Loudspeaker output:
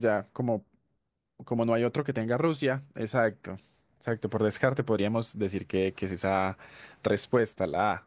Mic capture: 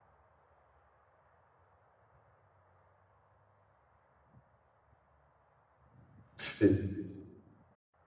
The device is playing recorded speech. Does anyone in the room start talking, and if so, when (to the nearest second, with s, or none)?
6 s